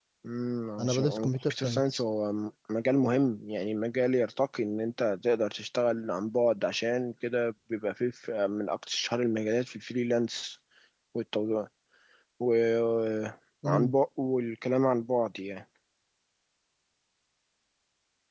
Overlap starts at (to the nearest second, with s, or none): 1 s